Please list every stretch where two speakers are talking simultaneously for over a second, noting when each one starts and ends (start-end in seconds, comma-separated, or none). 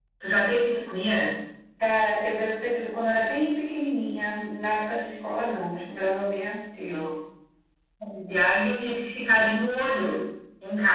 none